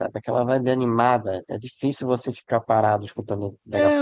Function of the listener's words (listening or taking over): taking over